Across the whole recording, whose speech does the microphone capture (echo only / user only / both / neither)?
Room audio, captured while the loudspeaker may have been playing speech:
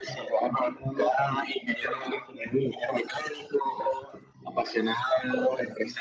echo only